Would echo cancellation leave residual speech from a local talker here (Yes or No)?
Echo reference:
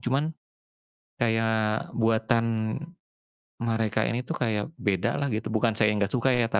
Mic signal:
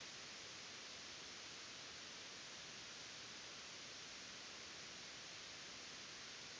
No